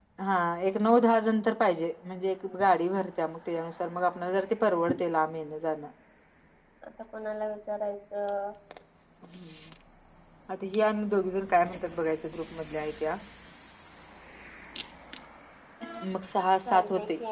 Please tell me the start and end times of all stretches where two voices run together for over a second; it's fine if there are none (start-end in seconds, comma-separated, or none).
none